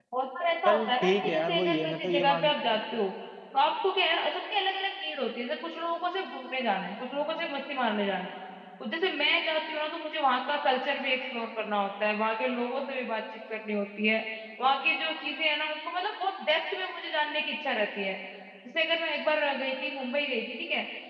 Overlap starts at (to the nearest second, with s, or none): 1 s